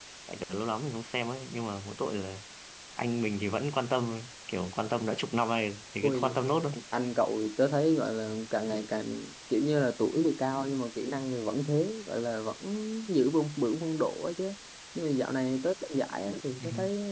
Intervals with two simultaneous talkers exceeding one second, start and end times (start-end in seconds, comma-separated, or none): none